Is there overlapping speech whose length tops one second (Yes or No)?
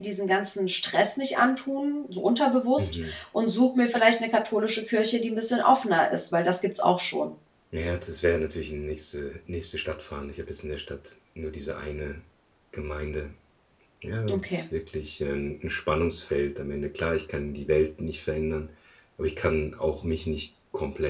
No